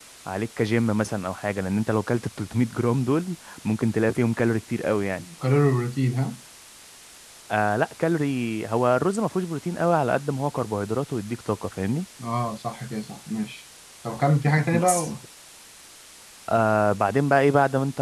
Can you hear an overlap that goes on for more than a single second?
No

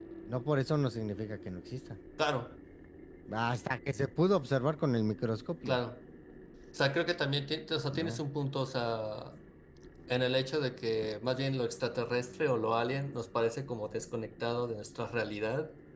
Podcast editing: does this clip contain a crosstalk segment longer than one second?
No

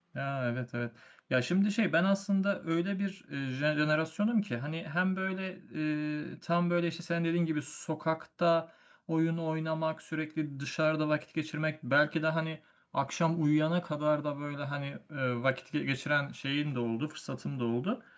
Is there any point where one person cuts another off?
No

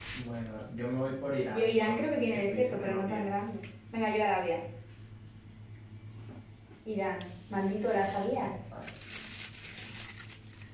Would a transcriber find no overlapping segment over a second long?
No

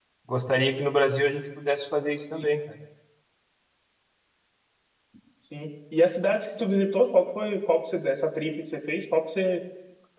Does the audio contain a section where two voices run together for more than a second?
No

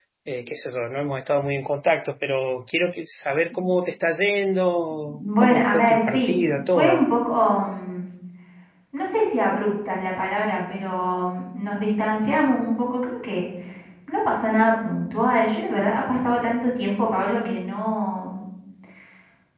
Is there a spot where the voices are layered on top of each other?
Yes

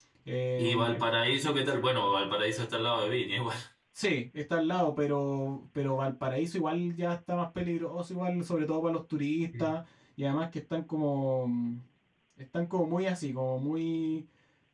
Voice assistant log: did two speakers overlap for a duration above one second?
No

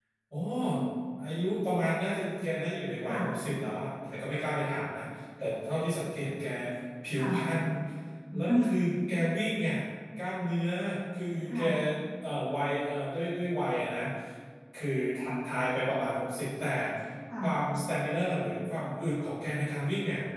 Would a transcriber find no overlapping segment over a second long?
Yes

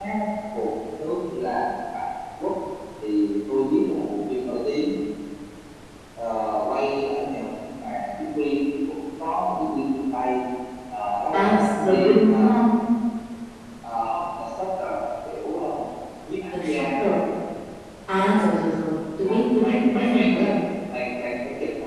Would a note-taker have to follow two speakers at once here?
Yes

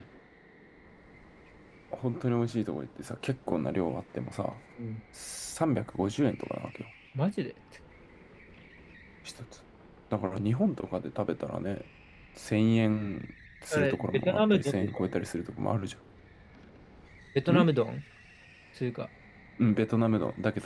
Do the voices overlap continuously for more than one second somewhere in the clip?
Yes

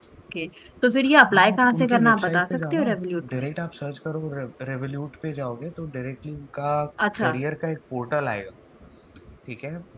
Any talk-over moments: Yes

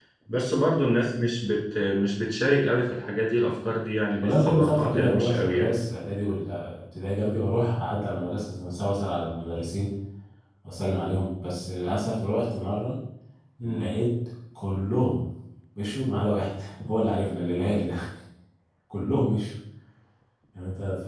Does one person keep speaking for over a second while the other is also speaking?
Yes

